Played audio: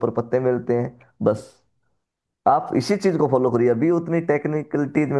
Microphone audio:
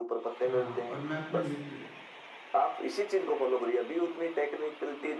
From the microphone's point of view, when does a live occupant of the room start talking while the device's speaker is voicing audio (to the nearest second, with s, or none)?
0 s